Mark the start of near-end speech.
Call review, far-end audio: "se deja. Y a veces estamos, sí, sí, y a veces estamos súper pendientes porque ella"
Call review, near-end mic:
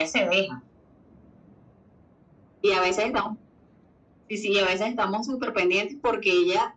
none

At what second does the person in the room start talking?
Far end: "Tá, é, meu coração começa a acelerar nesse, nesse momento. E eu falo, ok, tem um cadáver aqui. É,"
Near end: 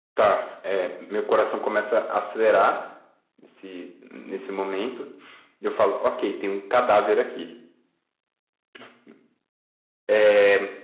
none

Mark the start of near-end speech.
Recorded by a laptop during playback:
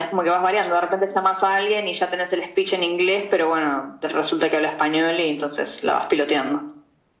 none

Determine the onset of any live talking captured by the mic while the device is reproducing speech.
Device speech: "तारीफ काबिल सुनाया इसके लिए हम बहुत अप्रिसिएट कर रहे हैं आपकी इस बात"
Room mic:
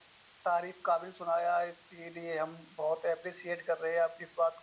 none

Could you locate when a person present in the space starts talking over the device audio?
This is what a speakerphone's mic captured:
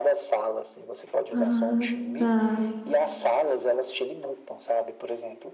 1.4 s

